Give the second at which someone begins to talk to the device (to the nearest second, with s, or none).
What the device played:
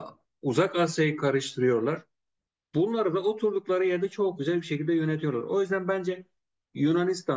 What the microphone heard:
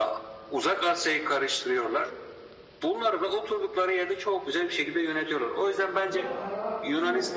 6 s